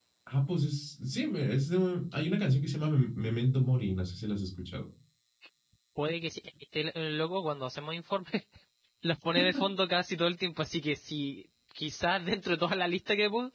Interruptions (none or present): none